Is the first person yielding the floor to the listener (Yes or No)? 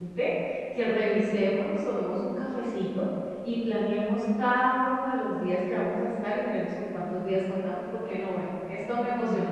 Yes